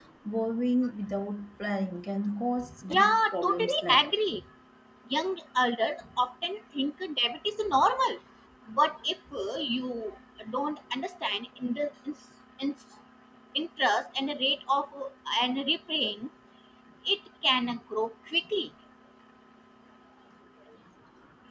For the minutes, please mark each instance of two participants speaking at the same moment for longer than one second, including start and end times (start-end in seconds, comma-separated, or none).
2.9-4.1